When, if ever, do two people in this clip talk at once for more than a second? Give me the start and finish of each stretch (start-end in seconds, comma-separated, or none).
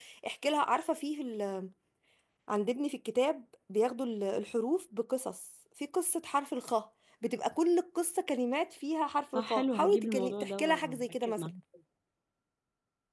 9.3-11.5